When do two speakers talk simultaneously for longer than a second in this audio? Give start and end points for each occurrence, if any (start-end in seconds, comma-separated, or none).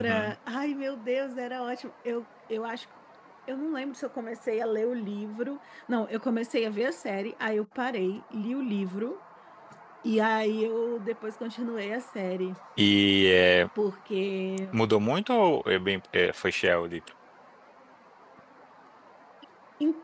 none